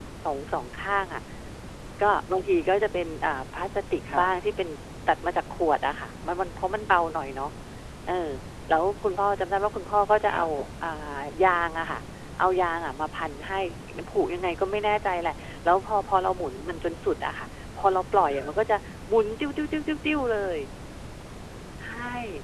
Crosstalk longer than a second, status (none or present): none